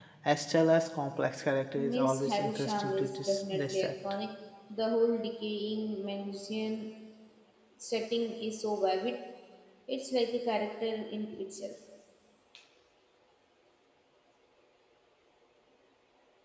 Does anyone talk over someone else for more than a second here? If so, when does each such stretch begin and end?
1.8-3.9

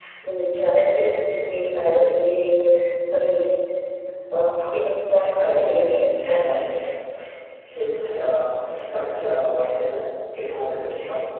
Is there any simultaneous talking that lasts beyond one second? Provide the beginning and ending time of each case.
5.3-6.9

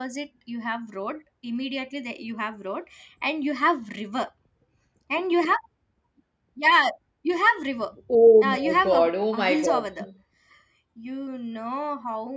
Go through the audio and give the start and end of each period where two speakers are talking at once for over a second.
8.4-10.0

